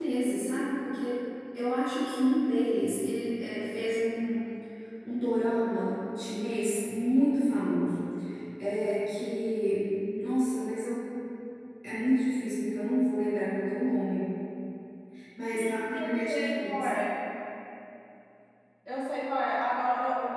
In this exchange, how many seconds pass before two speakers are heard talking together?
16 s

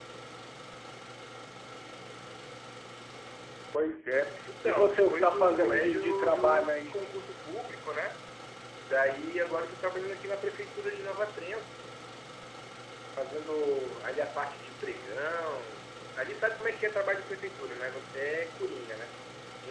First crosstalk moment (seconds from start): 4 s

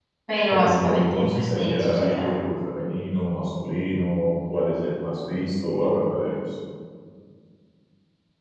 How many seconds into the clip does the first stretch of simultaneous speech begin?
1 s

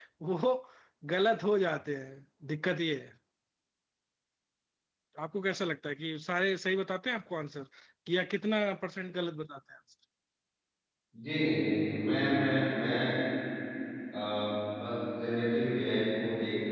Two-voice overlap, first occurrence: none

